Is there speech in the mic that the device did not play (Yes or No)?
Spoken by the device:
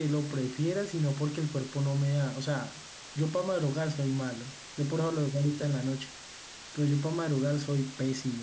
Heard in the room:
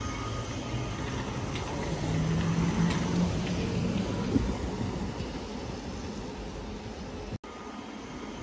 No